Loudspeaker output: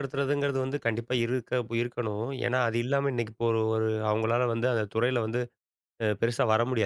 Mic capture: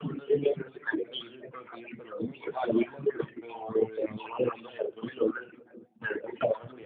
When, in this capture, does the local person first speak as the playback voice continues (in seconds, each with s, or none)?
none